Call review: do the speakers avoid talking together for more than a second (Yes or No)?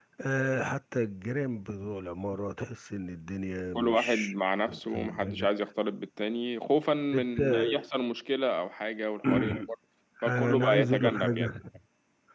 No